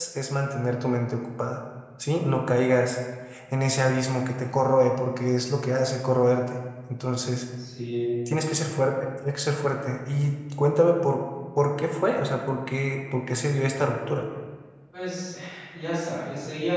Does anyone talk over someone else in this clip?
No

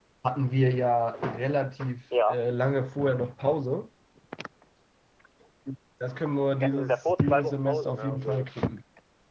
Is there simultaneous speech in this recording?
Yes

